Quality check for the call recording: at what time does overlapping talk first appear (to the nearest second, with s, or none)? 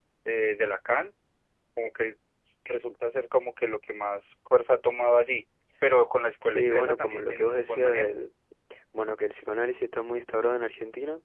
6 s